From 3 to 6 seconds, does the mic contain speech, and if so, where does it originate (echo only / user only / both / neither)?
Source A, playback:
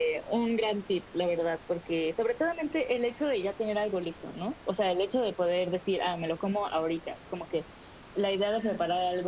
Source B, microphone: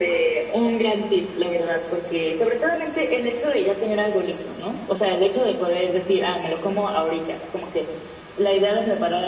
echo only